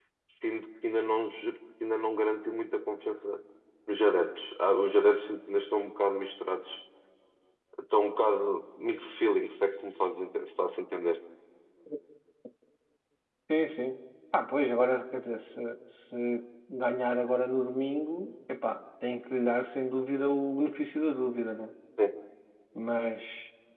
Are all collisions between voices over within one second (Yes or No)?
Yes